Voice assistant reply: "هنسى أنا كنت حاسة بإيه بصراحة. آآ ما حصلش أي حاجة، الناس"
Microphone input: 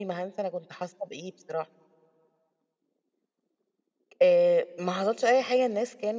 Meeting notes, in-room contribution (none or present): none